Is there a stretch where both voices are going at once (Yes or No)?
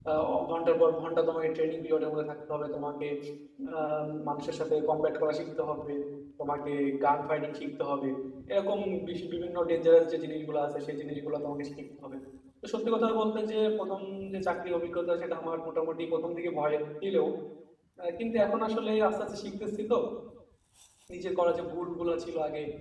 No